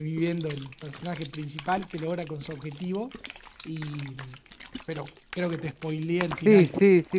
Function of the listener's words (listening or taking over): taking over